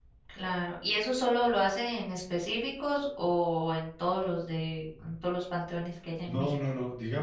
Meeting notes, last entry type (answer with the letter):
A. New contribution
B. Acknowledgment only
A